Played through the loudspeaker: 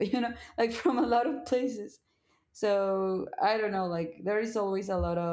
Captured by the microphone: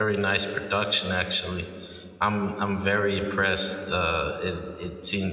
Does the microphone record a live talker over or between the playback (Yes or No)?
Yes